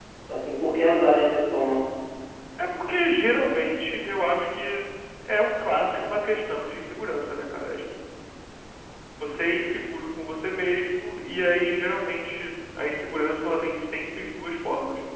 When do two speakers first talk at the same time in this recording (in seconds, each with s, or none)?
none